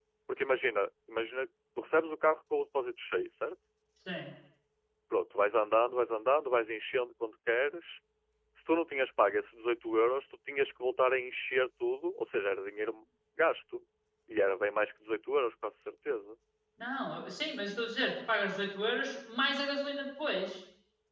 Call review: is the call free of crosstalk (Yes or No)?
Yes